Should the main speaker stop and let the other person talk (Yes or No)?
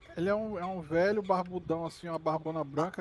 Yes